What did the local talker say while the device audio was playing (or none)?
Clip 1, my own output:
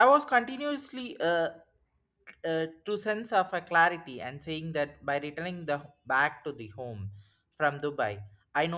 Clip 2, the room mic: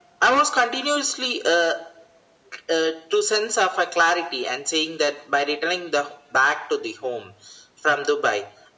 none